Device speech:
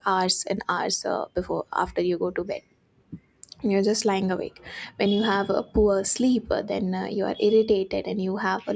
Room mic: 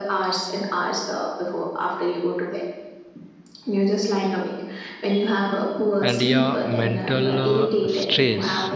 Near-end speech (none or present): present